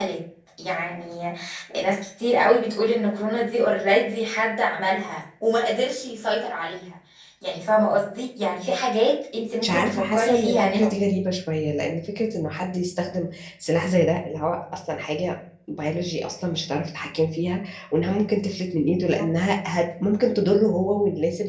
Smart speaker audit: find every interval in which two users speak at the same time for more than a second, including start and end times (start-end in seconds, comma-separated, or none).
9.6-10.9